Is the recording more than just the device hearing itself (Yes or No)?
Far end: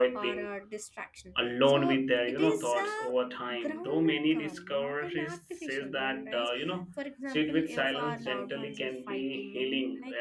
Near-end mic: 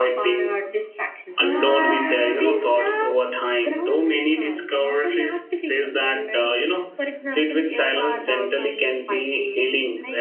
Yes